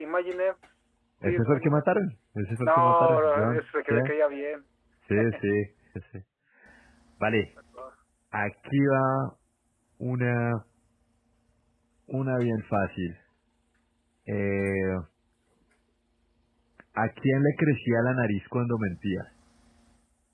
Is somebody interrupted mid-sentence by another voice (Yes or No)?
Yes